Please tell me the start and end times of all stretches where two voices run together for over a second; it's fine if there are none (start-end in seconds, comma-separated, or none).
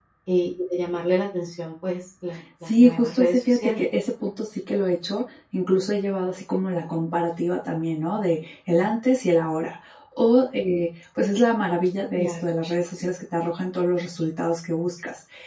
2.6-3.9